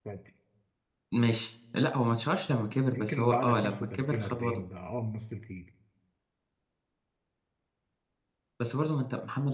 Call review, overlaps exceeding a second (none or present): present